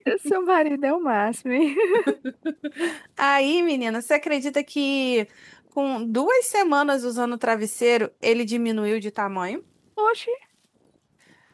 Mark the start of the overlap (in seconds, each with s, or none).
none